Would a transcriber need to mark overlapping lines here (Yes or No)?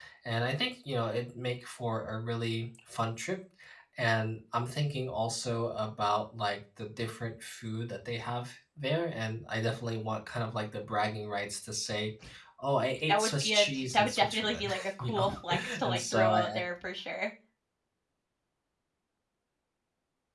Yes